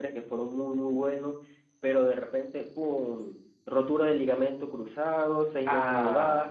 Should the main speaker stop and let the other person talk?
No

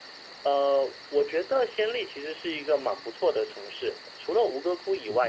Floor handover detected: No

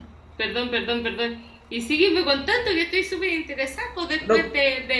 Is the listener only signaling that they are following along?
Yes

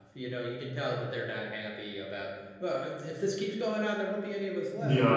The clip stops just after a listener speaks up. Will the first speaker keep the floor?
No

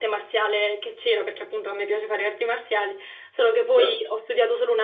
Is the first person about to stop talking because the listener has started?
No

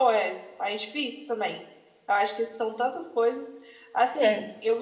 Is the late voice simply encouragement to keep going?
Yes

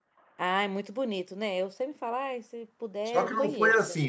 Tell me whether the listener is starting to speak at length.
Yes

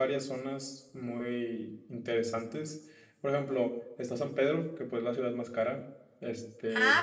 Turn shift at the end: Yes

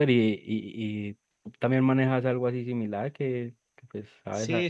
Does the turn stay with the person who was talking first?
No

